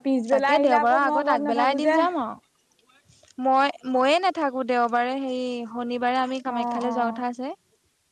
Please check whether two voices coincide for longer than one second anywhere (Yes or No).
Yes